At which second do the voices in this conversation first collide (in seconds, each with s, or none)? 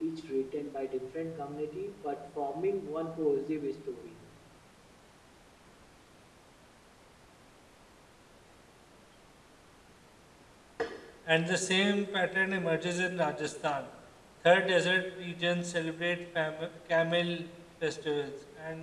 none